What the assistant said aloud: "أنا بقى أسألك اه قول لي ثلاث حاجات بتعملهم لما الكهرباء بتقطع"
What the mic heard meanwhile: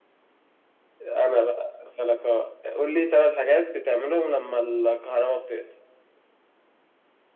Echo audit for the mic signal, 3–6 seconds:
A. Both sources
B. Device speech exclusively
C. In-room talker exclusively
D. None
B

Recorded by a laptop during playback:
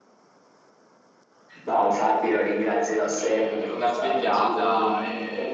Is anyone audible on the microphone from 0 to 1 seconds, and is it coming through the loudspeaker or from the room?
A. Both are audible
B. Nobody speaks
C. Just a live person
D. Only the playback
B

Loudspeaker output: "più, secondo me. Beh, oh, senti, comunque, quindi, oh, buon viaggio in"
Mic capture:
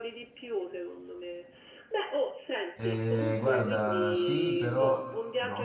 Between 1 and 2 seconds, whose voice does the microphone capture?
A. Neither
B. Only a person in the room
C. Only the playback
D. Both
C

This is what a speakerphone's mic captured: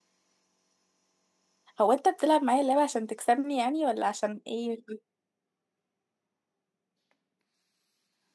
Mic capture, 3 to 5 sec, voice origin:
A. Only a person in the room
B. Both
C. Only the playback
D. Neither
A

